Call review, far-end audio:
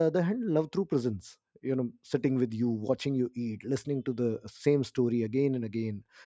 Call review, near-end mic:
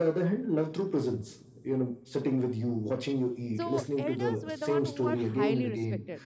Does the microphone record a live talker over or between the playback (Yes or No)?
Yes